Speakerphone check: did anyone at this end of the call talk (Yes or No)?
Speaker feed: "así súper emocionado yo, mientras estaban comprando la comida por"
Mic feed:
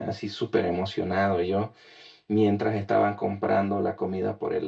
No